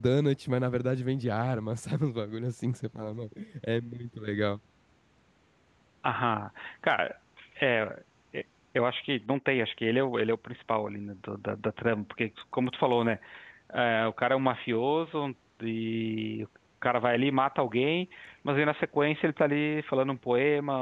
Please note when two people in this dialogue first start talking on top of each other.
none

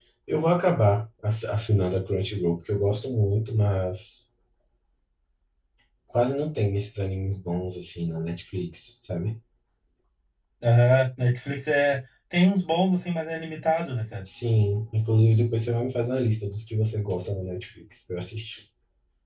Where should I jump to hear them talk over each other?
none

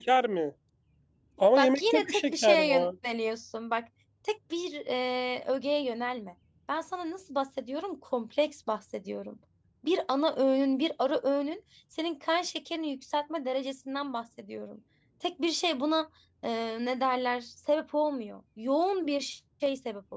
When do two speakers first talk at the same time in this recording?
1.6 s

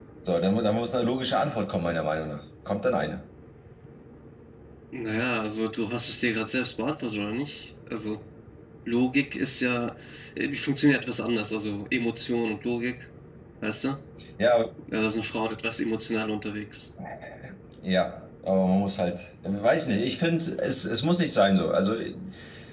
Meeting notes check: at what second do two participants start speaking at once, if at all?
none

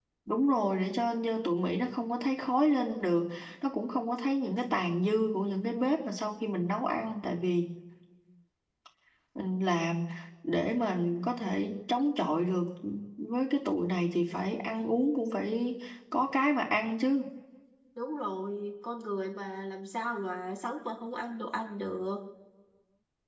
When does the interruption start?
none

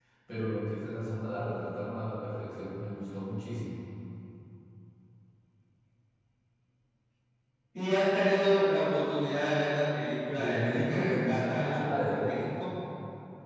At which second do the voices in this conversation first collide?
10.3 s

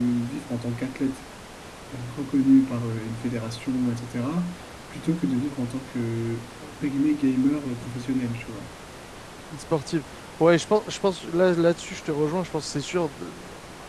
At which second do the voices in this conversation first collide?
none

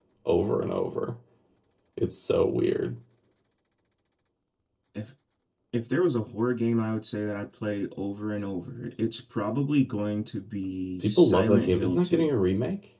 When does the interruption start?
11.0 s

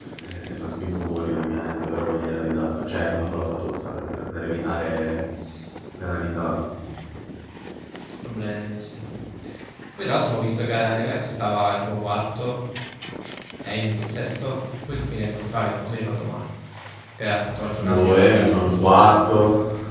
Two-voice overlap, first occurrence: 17.8 s

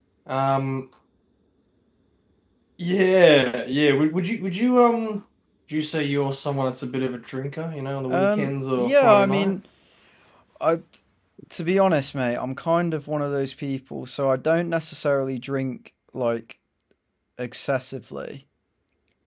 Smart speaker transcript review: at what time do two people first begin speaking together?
8.1 s

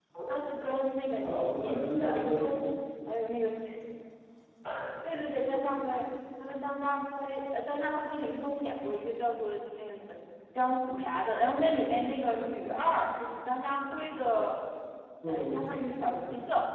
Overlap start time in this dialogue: 1.2 s

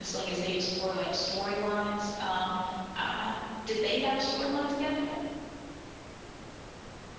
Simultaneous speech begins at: none

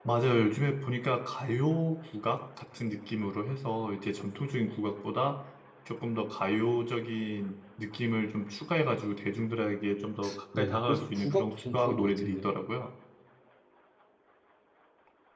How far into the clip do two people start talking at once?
10.6 s

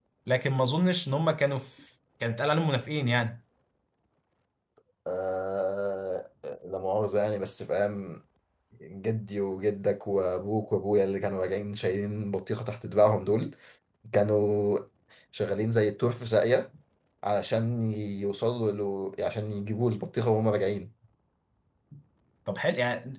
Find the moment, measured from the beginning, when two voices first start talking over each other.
none

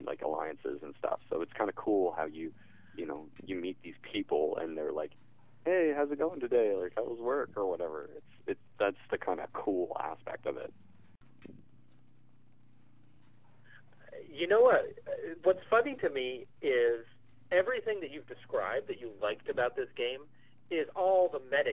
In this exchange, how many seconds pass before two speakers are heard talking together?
none

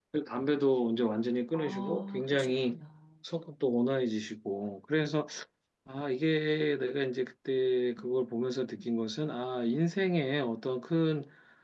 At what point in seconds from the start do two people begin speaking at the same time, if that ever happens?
1.5 s

